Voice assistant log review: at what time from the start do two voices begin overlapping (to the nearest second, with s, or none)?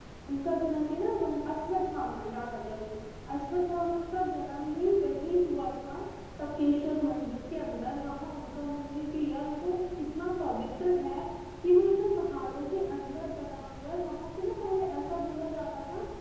none